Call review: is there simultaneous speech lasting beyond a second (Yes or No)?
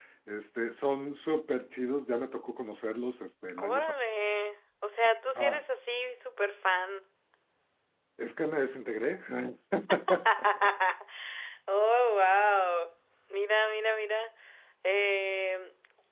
No